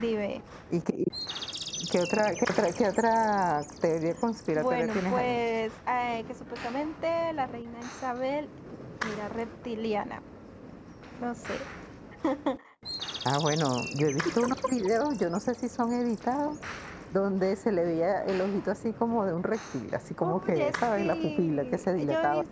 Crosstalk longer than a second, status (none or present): present